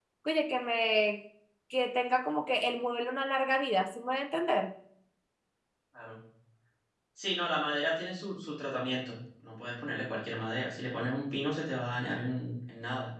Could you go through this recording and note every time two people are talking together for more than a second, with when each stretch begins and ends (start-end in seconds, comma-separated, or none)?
none